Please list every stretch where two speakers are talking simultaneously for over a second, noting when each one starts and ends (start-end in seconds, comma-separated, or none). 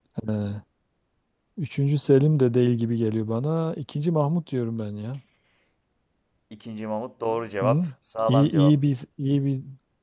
none